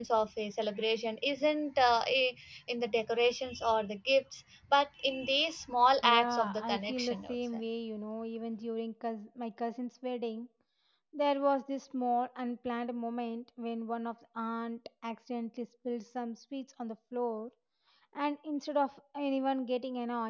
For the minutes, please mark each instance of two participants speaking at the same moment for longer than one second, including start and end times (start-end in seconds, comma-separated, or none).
6.0-7.4